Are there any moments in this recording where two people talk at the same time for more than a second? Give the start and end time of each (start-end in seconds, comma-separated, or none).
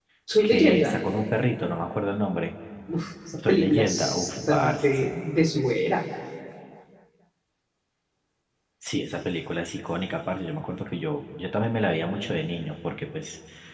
3.5-5.1